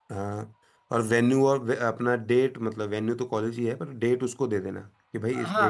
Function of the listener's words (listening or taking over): taking over